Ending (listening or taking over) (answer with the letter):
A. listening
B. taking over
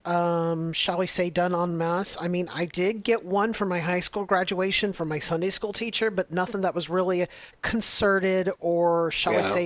B